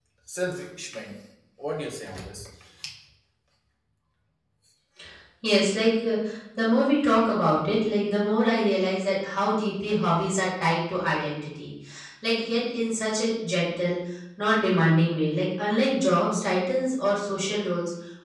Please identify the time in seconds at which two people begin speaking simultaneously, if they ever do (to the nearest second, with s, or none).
none